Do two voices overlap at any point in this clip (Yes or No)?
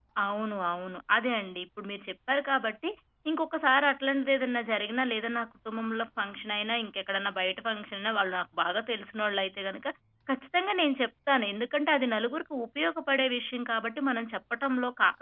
No